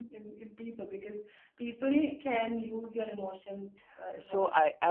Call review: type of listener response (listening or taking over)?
taking over